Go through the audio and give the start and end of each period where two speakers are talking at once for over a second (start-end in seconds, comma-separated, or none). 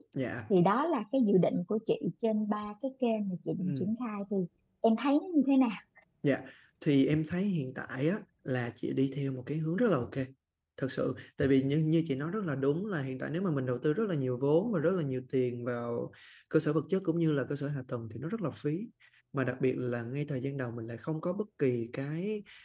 none